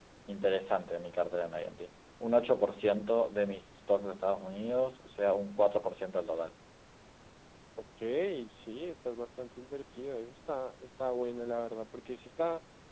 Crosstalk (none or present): none